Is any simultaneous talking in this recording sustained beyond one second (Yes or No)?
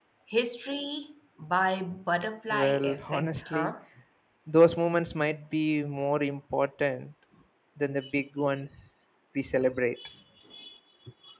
Yes